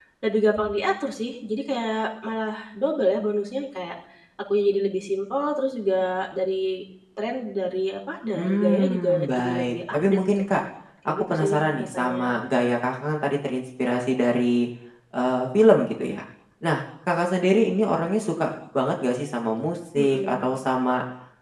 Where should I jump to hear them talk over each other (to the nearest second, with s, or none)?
8 s